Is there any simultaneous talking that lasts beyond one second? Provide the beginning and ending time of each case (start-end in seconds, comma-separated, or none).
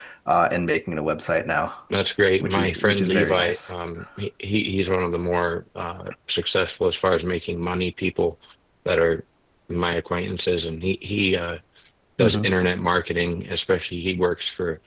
2.4-3.7